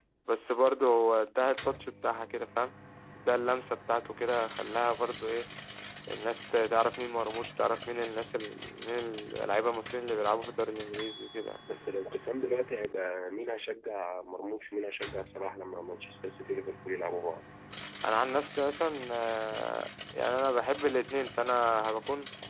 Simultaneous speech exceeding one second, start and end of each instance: none

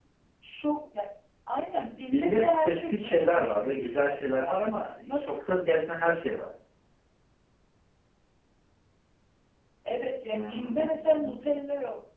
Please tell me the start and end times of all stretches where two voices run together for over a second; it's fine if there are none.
2.1-4.5, 10.3-11.5

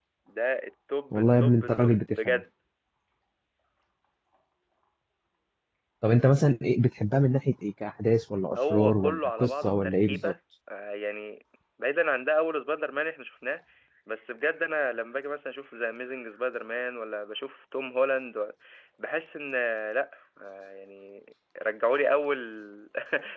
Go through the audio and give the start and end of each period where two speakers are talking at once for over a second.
1.1-2.4, 8.7-10.3

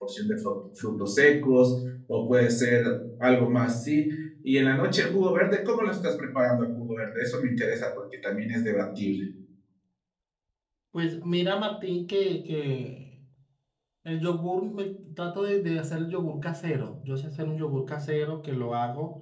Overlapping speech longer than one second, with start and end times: none

